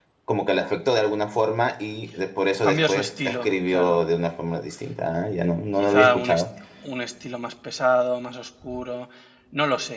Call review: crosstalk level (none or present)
present